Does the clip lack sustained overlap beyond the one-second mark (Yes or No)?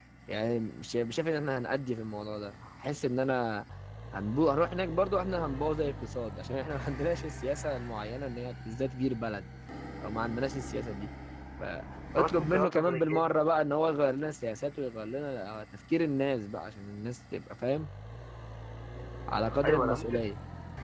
No